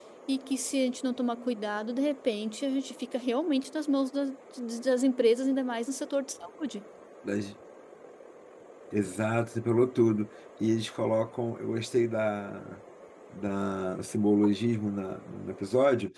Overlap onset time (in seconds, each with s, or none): none